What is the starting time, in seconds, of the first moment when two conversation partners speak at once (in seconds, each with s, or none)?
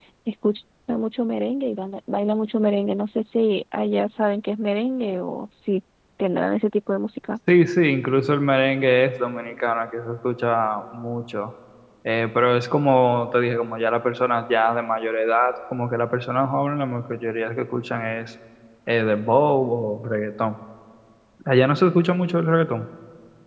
none